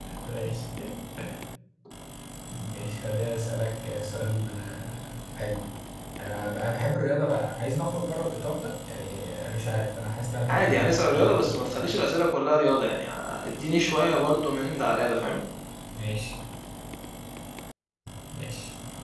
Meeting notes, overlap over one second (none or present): present